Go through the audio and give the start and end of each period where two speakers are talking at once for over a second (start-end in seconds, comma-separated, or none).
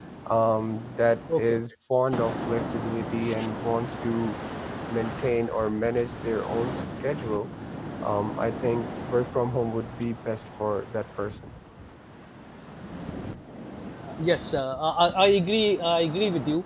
none